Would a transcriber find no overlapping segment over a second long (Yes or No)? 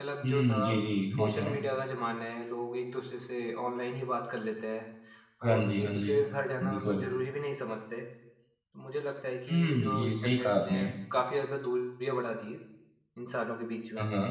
No